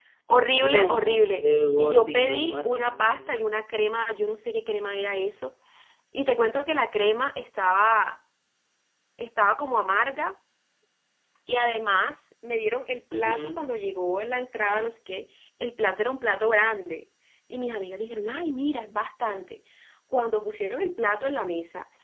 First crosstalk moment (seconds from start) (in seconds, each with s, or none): 0.6 s